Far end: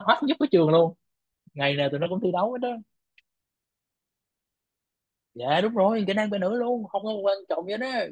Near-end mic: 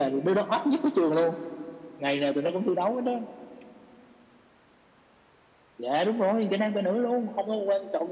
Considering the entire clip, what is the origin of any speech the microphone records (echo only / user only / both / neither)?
echo only